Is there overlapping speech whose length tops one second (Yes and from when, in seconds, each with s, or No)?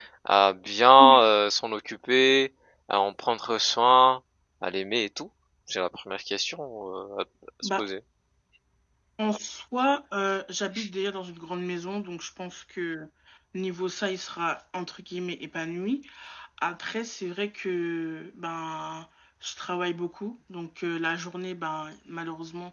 No